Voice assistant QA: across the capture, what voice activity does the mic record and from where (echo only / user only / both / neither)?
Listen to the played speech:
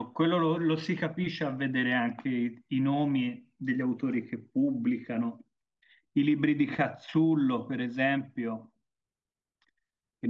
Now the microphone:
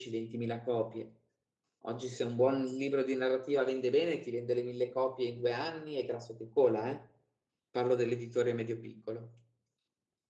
user only